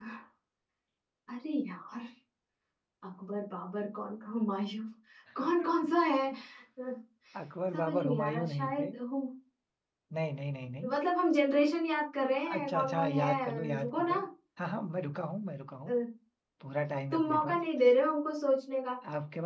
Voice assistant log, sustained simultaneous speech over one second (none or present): present